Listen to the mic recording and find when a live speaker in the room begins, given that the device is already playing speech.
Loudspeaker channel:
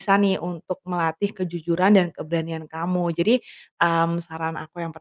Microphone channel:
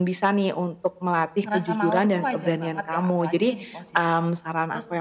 1.4 s

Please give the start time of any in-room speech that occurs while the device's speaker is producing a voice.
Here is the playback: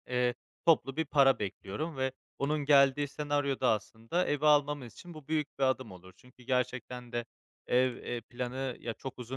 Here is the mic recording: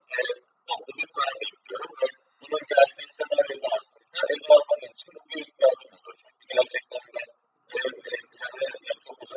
none

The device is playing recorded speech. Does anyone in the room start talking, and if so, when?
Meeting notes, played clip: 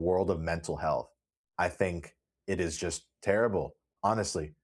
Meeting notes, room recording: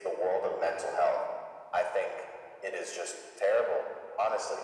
none

